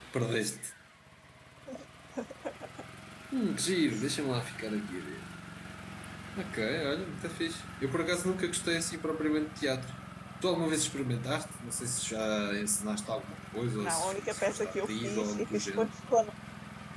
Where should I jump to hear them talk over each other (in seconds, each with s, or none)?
13.8 s